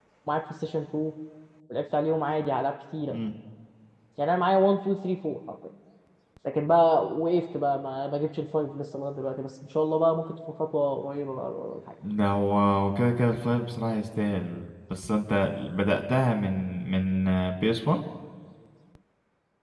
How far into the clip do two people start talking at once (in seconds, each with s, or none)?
none